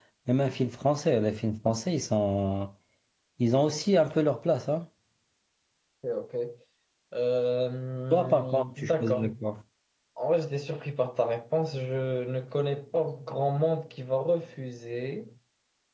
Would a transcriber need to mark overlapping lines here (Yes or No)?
Yes